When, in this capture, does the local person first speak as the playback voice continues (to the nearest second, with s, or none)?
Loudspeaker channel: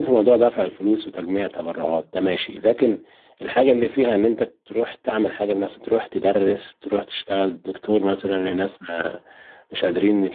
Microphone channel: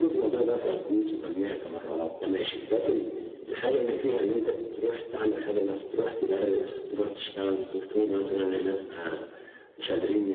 none